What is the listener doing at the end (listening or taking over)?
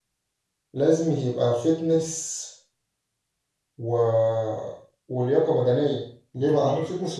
listening